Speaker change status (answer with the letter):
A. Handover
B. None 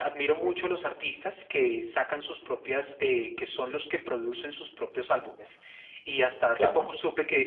B